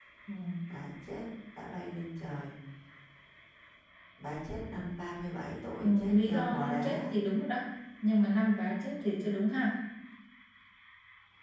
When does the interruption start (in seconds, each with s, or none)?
5.8 s